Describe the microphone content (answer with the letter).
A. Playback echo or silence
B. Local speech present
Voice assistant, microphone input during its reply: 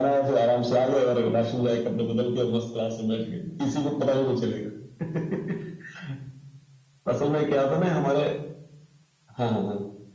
A